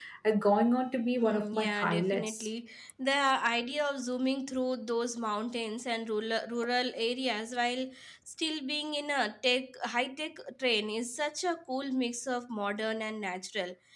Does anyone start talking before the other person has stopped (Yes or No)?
Yes